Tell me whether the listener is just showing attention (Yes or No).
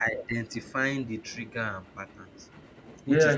No